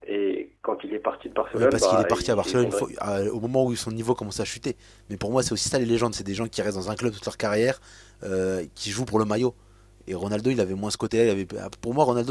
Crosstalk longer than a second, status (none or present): present